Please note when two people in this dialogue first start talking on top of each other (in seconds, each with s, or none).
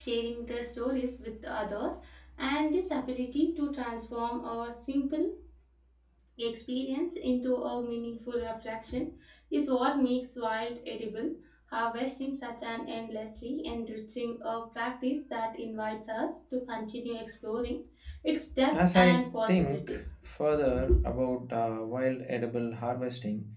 18.7 s